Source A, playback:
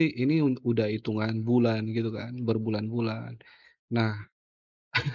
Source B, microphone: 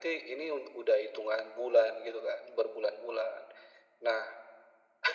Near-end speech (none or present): none